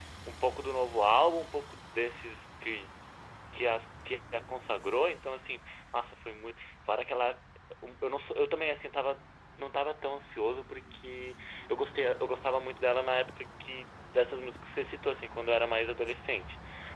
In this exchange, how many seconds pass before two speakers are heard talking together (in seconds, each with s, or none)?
none